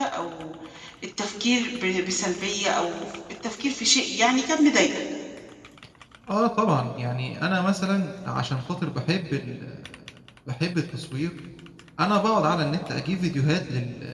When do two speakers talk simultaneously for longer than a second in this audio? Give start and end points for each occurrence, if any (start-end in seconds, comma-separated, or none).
none